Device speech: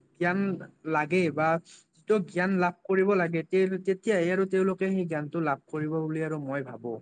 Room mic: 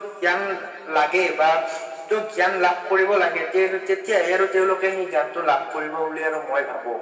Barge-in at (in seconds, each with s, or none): none